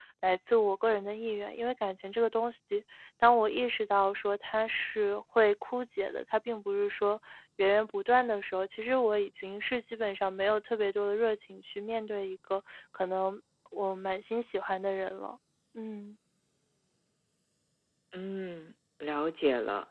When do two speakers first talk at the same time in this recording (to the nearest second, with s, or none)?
none